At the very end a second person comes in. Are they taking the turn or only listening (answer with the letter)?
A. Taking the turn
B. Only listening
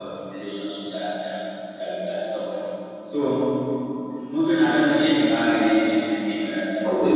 A